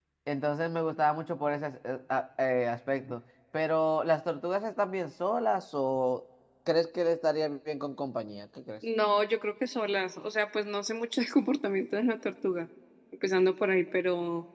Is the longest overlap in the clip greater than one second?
No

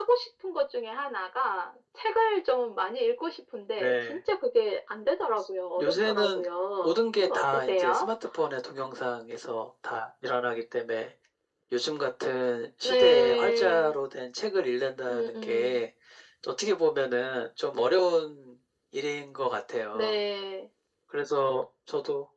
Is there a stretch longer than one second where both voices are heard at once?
Yes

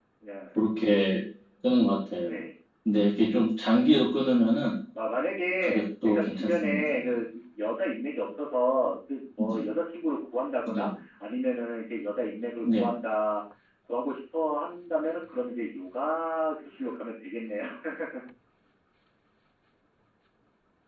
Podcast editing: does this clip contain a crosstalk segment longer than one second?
Yes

